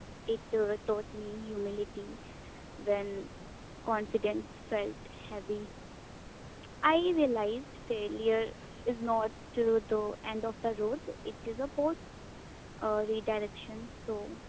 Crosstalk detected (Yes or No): No